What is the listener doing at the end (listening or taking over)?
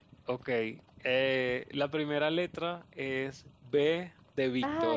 taking over